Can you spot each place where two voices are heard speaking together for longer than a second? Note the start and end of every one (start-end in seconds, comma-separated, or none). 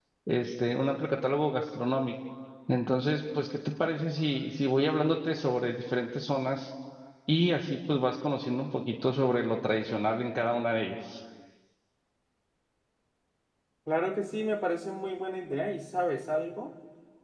none